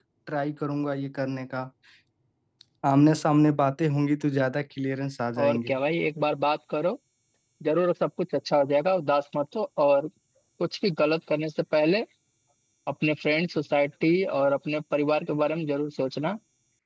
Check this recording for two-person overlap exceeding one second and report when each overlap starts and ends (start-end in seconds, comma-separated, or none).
none